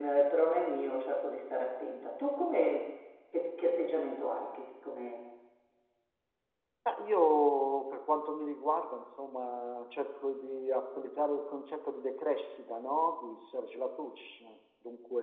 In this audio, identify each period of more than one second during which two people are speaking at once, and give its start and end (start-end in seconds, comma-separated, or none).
none